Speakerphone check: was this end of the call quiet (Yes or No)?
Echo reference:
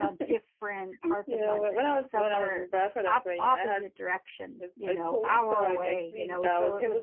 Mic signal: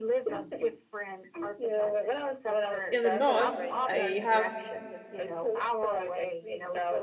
No